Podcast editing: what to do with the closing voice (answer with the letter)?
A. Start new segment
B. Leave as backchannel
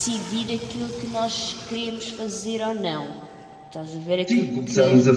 A